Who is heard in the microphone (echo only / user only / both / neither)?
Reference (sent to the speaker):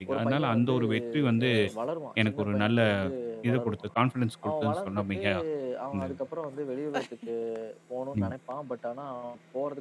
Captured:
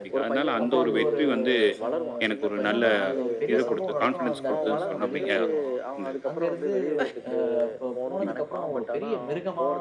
both